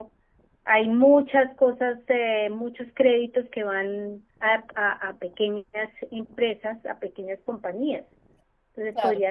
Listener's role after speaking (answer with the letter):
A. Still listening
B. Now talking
A